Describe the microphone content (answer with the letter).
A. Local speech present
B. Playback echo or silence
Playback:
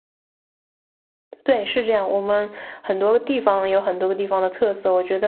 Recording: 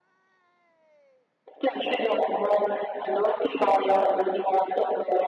B